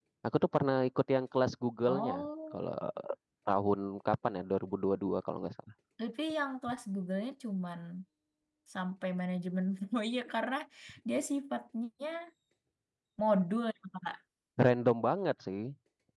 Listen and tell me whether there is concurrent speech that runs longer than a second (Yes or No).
No